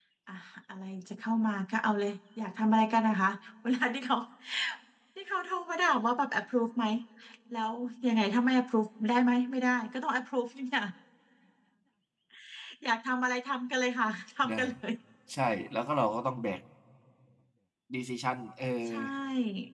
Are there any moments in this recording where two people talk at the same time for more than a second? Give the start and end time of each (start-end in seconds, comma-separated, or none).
none